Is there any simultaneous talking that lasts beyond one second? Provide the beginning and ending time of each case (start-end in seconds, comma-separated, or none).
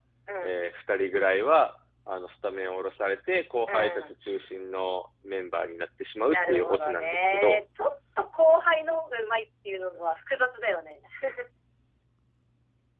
6.3-7.6